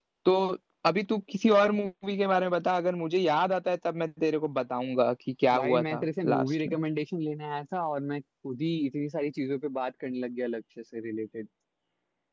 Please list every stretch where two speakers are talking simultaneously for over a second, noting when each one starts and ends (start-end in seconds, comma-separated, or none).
5.5-6.8